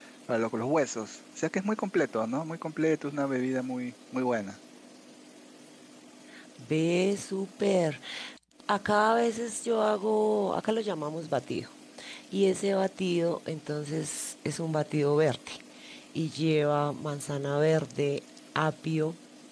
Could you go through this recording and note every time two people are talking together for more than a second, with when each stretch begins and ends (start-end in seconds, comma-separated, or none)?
none